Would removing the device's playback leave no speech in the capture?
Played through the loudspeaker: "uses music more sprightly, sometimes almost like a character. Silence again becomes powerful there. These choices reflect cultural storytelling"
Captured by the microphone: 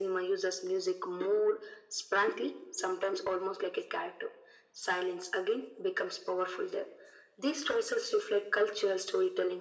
Yes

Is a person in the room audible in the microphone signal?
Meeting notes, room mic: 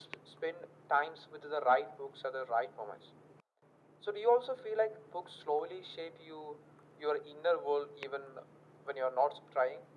No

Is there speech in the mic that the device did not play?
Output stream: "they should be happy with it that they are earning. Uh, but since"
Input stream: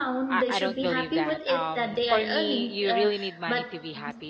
Yes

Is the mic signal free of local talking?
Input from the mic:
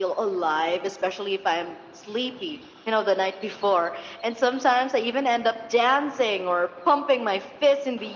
Yes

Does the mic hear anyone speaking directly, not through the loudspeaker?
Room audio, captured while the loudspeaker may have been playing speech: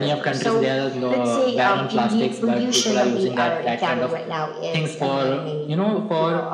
No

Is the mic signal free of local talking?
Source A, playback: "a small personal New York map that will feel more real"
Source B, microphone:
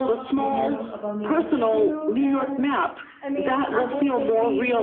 No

